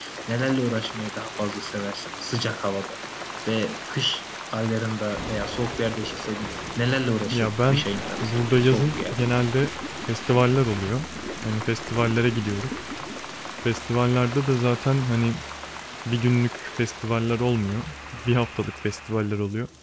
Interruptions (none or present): present